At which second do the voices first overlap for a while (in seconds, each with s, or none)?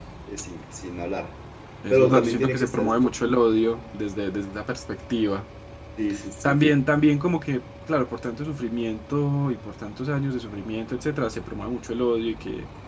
1.9 s